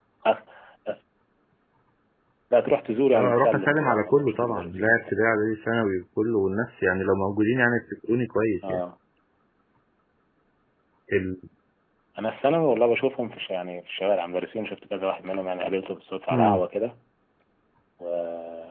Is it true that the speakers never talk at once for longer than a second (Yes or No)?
No